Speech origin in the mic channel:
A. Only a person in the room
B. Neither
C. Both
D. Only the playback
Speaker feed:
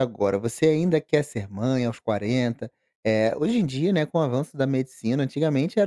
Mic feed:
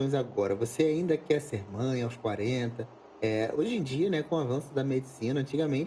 D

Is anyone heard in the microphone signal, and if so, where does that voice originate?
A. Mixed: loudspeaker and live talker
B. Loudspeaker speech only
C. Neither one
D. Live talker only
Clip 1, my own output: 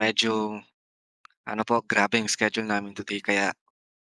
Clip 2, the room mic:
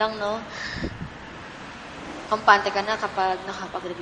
D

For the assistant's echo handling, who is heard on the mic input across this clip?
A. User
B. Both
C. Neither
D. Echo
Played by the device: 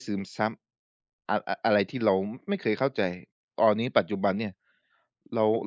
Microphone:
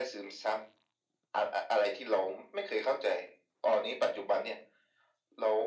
D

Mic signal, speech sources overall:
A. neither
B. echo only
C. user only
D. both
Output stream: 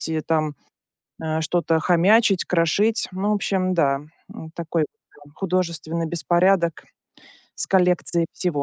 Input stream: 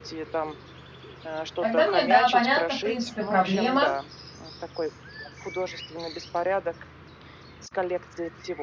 D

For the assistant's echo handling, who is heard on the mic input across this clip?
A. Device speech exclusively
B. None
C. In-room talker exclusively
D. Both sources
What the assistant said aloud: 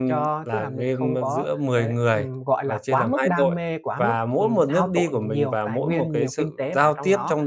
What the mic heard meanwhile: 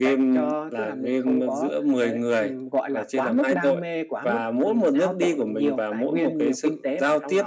A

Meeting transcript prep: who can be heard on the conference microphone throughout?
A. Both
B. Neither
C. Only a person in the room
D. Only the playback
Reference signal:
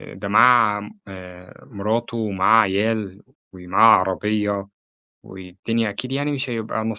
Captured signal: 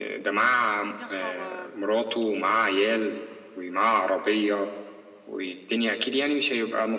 A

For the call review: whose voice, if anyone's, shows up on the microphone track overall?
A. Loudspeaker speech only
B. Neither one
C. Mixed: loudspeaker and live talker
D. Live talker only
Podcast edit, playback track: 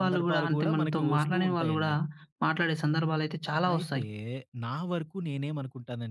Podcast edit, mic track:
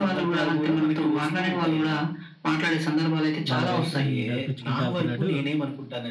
C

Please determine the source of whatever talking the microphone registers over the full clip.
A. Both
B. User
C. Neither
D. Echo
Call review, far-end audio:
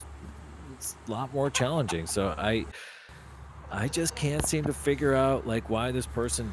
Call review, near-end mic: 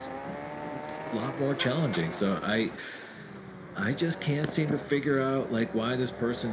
D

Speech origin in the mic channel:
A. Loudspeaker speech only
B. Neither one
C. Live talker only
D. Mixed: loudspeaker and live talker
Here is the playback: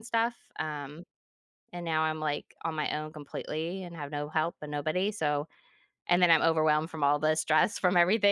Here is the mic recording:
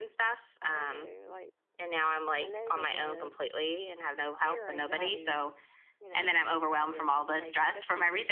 D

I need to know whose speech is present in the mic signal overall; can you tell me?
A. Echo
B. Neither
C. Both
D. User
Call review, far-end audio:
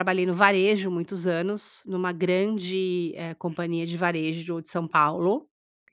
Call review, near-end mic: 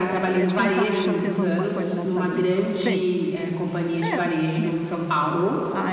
C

